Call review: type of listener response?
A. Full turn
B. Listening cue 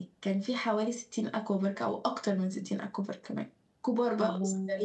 B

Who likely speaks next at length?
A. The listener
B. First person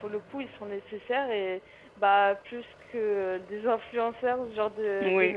A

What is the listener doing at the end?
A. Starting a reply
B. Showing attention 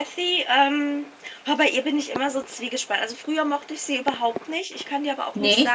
B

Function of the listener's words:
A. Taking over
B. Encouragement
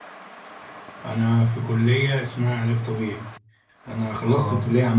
B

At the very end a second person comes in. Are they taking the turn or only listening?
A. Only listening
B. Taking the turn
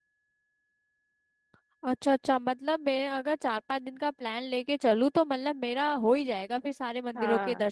B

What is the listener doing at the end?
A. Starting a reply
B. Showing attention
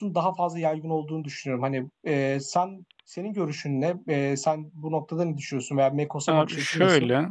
A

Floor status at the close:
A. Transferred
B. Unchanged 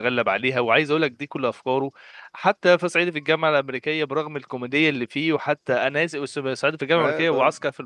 B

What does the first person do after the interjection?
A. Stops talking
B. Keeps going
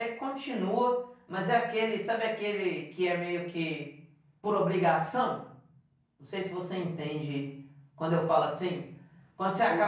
A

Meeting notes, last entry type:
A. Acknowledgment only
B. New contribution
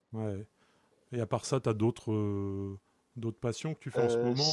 B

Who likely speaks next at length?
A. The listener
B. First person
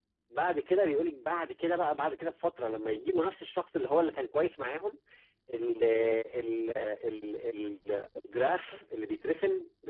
B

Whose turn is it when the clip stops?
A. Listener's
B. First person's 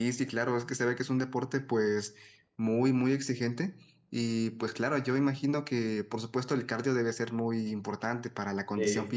B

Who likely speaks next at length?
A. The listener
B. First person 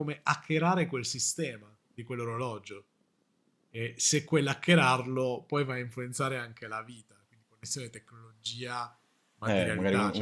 A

